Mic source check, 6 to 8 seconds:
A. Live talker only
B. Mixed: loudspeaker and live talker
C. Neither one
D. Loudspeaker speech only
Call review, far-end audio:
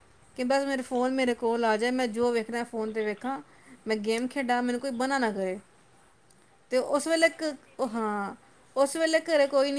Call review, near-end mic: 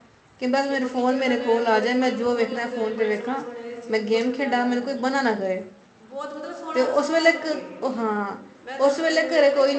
B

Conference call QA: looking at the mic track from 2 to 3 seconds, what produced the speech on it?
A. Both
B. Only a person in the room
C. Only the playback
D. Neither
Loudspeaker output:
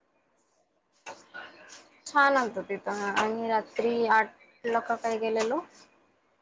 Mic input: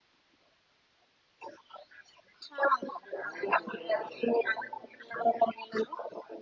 C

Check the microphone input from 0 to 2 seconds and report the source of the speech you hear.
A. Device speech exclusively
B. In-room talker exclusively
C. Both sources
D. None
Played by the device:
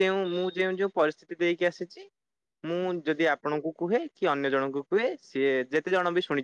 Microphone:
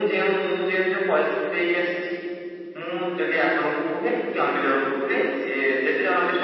A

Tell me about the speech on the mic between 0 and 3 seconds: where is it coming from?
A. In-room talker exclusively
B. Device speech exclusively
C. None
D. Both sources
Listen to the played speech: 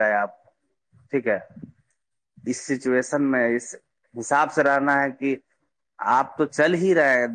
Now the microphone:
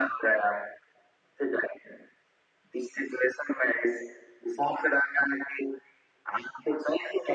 B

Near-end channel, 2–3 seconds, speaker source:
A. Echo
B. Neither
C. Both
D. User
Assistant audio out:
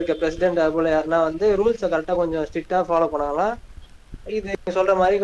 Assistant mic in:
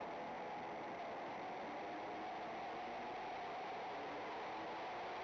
B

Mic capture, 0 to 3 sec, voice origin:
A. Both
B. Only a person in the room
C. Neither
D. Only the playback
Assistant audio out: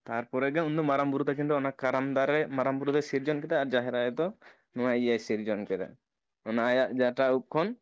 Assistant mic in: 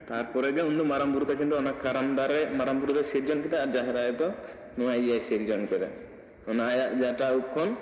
D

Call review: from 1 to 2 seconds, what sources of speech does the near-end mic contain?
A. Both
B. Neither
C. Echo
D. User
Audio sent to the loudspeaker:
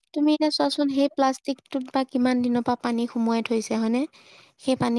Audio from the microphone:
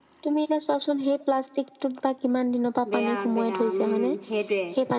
C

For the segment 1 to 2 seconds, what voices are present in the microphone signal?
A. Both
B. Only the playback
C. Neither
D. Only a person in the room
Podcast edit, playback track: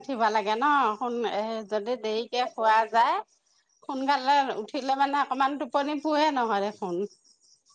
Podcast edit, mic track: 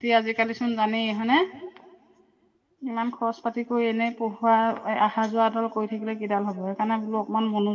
D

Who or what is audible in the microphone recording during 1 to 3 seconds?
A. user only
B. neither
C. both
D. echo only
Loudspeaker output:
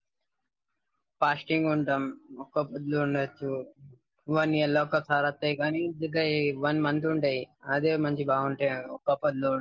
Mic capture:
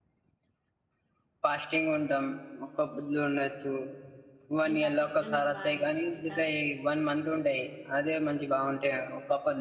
D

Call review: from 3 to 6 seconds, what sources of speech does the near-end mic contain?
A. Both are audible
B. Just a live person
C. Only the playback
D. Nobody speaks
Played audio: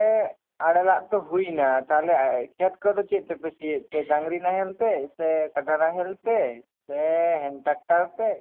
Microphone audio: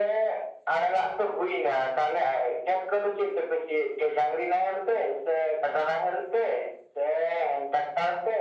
C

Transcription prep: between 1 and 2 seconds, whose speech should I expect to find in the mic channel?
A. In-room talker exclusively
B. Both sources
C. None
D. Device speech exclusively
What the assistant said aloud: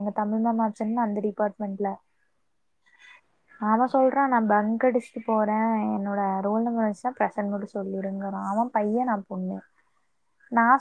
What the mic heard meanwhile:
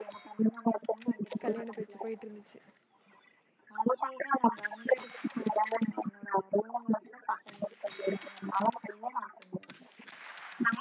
B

